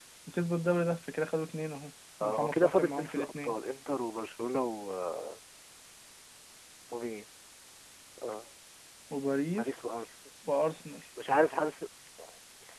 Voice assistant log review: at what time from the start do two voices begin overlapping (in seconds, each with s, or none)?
2.2 s